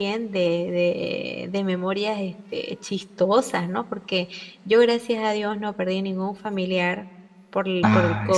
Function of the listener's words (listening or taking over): listening